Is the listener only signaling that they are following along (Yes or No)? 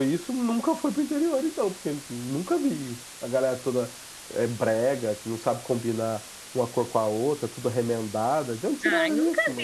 No